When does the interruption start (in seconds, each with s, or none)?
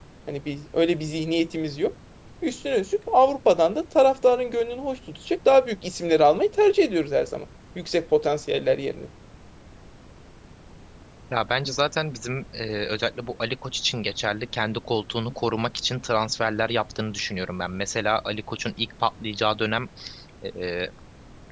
none